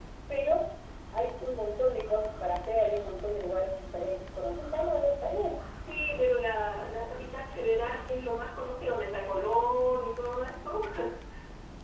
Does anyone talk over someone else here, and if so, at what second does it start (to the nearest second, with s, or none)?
none